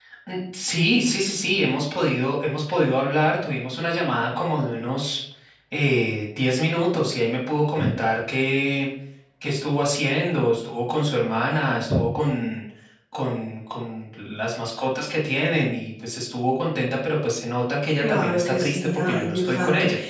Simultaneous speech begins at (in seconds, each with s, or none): 18.0 s